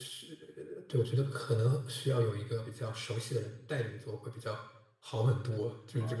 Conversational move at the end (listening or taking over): taking over